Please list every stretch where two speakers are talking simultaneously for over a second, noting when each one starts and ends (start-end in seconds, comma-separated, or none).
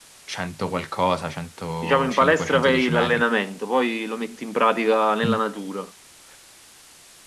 1.8-3.2